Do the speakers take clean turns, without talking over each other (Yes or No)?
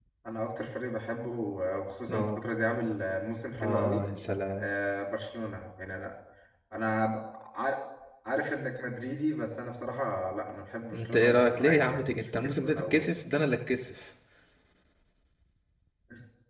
No